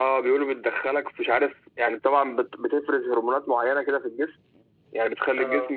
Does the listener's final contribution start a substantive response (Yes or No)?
No